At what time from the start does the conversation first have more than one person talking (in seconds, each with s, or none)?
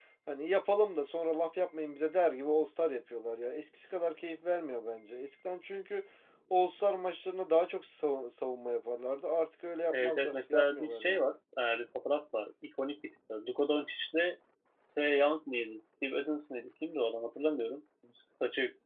9.9 s